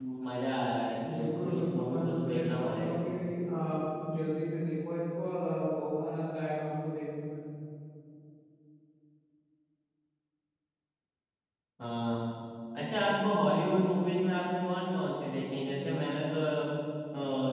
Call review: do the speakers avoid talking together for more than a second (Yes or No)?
No